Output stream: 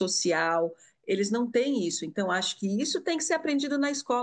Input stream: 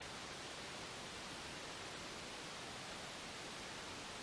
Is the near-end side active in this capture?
No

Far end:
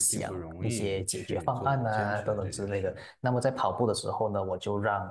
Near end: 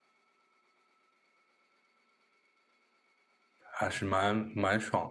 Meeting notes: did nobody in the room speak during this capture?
No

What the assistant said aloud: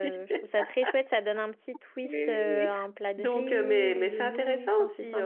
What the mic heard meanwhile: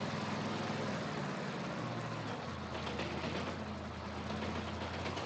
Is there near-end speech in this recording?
No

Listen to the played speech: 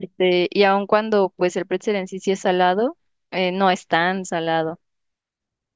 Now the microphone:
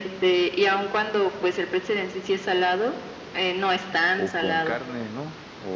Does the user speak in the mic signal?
Yes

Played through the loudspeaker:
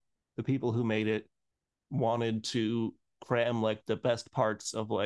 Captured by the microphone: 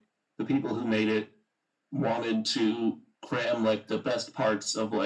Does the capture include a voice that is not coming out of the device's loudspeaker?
No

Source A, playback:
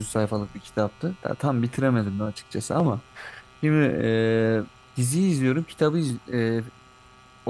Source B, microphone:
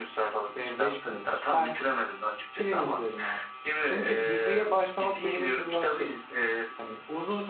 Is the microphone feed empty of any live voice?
No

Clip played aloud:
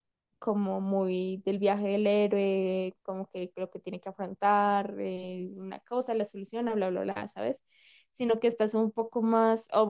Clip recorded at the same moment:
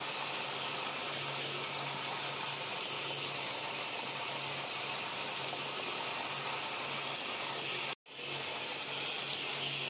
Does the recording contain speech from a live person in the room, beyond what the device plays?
No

